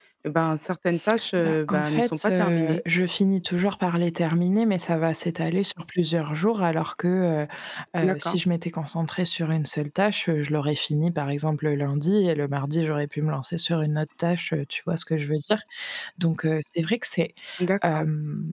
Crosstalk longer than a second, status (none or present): present